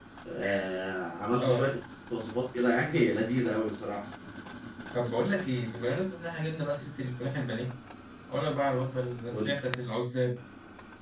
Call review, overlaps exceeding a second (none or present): none